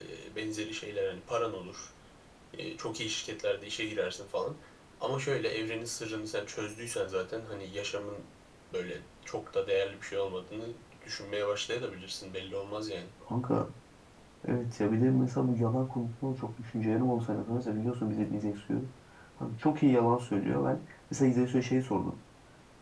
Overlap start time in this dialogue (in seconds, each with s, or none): none